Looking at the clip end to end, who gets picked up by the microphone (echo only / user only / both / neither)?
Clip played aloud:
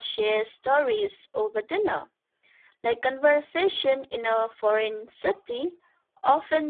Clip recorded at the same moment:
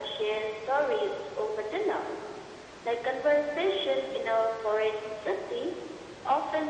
echo only